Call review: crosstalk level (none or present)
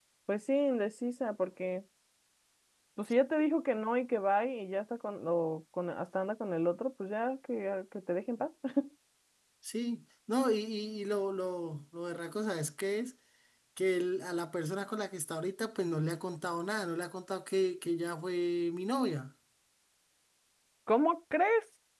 none